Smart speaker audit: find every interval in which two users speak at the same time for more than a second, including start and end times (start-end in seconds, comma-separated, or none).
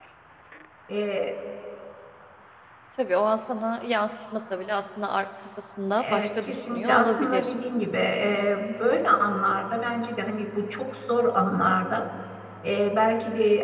6.0-7.5